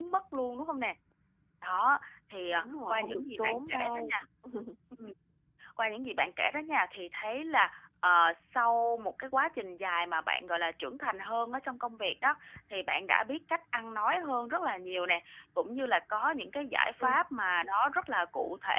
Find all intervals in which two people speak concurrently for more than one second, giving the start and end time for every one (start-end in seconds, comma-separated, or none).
2.6-4.2